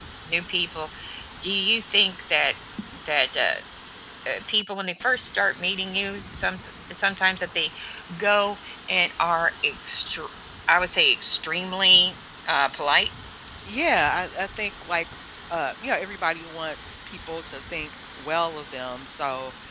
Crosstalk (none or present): none